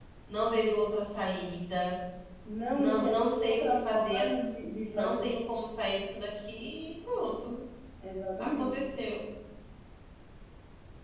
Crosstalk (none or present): present